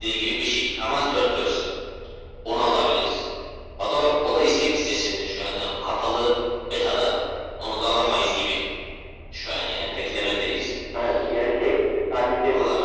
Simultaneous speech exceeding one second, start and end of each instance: none

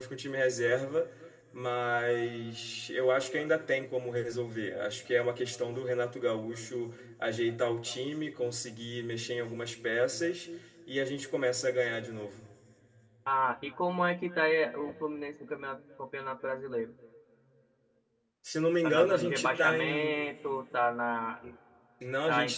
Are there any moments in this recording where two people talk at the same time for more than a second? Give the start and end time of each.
18.8-20.3

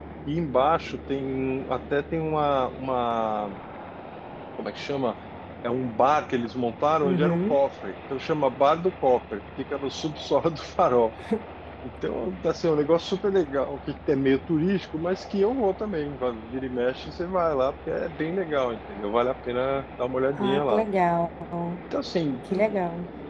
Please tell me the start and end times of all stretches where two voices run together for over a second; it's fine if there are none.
none

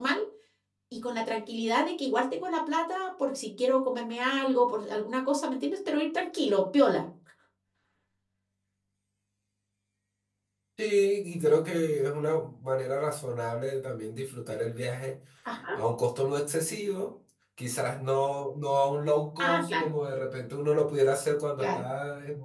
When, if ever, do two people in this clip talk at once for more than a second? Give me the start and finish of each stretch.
none

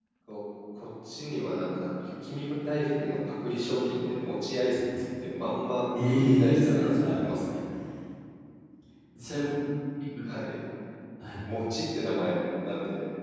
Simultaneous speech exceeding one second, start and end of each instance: 6.0-7.6

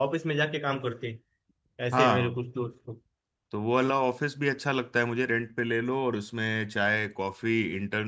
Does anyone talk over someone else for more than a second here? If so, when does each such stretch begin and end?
none

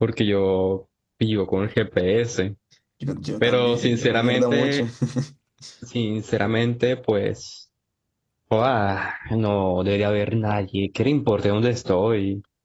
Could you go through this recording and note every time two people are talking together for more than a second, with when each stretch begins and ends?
3.4-4.8

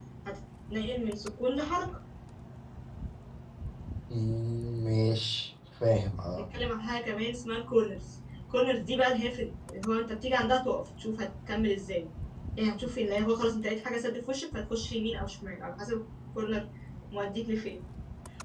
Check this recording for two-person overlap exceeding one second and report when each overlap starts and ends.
none

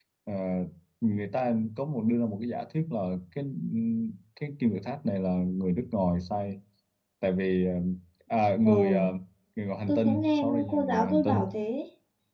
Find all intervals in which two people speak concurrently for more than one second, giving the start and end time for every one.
9.9-11.4

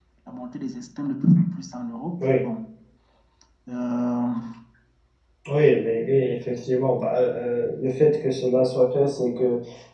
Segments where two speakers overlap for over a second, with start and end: none

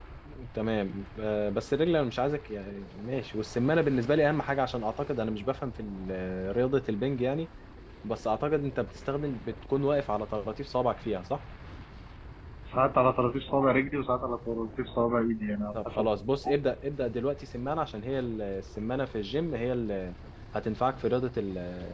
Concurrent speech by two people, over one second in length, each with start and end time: none

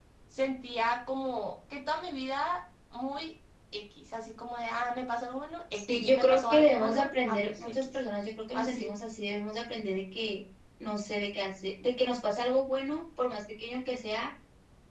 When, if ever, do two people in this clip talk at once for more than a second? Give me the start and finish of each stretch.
5.7-8.0

